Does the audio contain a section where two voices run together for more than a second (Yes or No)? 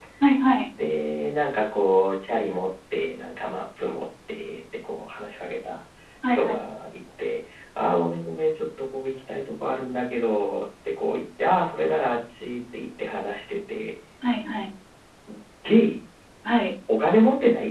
No